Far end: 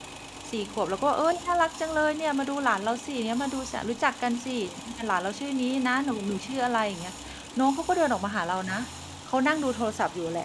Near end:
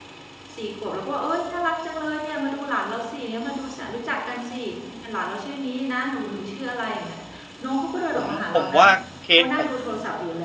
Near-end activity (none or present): present